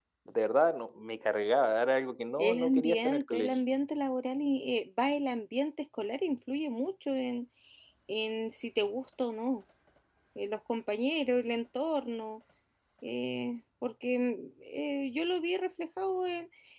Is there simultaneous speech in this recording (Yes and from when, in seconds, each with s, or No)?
Yes, from 2.4 s